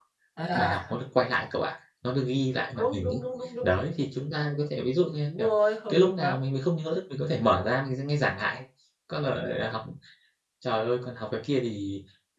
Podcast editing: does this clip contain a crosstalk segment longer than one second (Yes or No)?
No